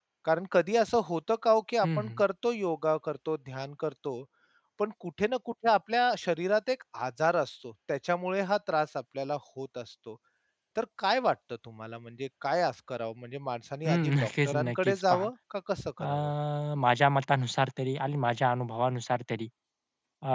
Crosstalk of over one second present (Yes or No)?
Yes